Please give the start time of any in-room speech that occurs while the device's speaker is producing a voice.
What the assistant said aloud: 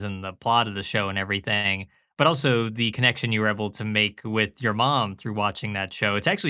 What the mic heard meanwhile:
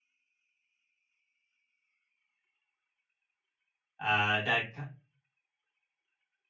4 s

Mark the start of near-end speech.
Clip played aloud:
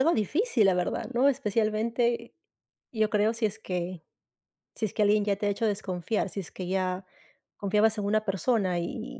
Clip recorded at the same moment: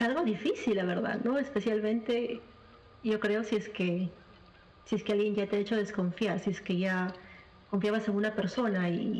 none

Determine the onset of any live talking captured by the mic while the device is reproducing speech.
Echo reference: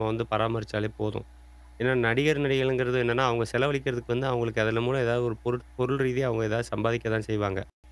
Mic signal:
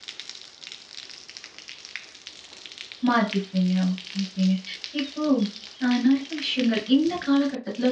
3 s

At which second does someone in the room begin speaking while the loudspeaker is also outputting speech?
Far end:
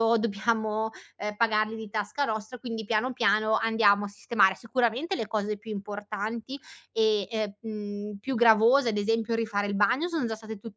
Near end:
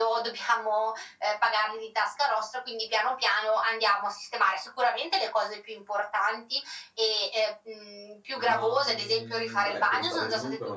8 s

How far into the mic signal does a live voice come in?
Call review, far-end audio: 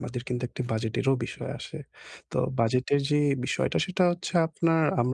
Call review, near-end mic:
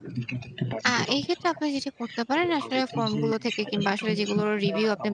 1 s

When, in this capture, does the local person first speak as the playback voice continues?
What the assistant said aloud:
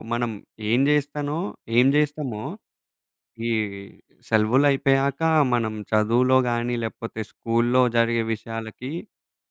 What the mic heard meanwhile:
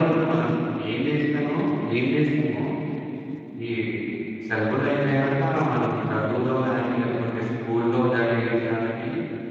none

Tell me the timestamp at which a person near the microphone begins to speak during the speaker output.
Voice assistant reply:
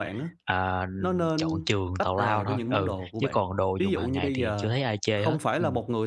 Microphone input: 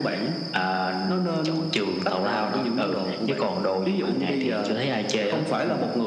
none

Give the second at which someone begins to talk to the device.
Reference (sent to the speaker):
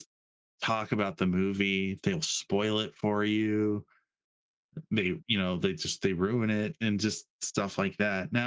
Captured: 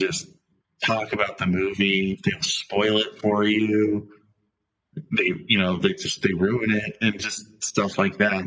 none

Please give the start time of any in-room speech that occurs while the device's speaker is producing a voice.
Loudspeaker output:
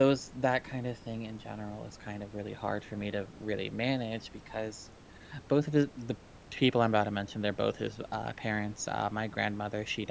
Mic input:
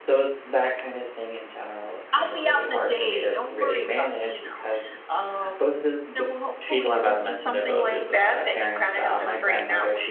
2 s

